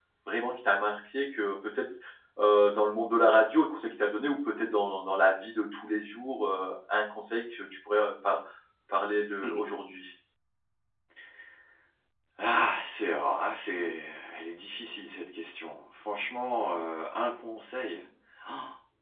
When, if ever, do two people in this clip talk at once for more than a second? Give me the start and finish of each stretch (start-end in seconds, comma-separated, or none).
none